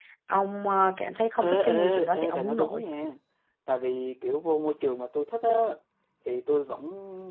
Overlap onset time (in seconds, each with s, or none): 1.4 s